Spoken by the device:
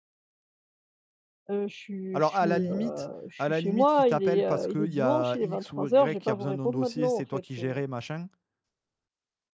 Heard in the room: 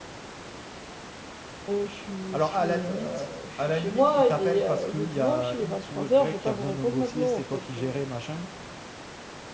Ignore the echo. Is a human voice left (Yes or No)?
No